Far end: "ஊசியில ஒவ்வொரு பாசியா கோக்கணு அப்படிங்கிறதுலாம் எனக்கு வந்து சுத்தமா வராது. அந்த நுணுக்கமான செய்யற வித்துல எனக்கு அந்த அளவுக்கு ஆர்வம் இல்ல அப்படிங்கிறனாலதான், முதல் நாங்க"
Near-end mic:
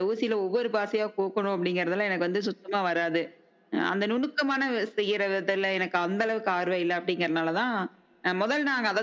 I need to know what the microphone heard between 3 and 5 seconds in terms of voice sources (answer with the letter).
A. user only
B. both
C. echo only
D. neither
C